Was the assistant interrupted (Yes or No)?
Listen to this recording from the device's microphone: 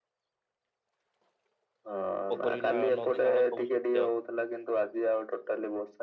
Yes